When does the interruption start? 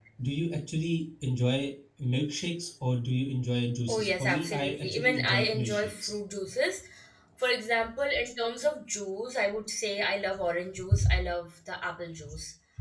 3.9 s

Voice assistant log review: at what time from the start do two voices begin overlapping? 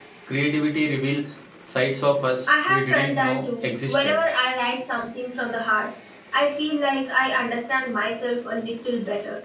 2.7 s

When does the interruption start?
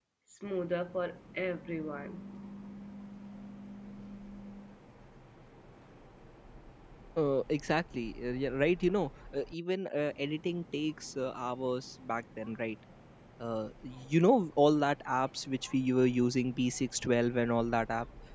none

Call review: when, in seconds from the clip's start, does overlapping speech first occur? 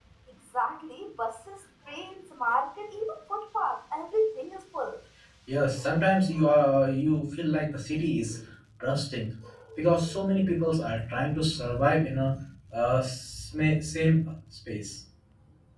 none

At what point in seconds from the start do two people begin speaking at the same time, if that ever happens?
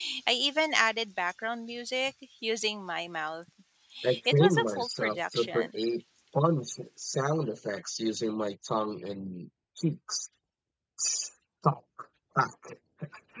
4.3 s

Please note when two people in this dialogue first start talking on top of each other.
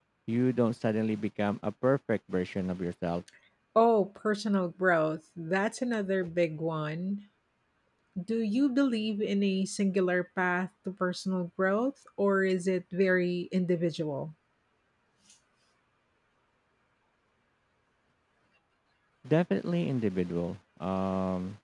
none

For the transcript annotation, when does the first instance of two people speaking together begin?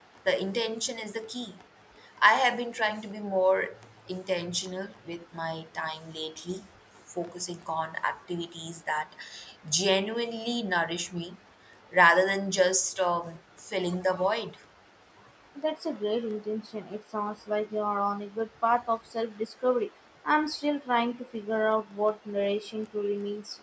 none

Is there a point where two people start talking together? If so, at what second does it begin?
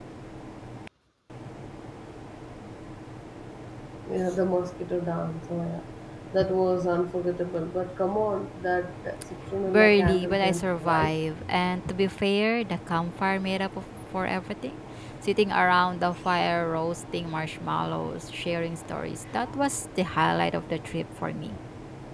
9.5 s

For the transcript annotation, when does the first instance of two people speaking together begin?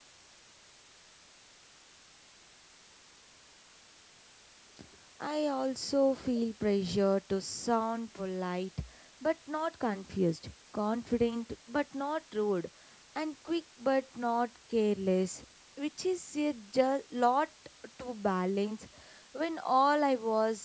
none

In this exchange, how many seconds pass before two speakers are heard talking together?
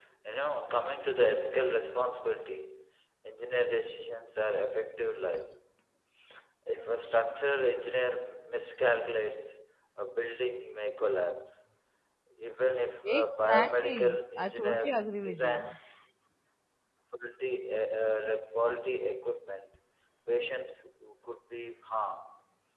13.0 s

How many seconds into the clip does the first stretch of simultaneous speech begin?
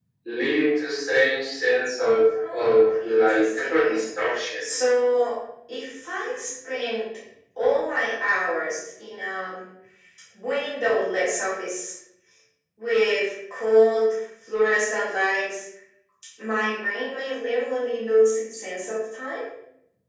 2.3 s

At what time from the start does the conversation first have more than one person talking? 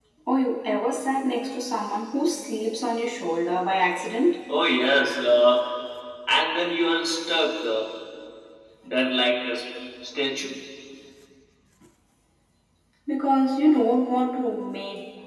none

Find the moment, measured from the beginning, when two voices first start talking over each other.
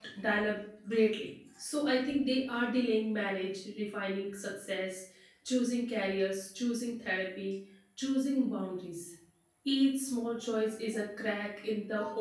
none

